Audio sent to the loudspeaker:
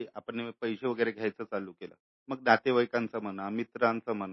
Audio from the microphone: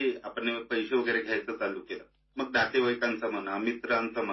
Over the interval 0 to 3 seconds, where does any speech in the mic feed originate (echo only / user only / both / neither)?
echo only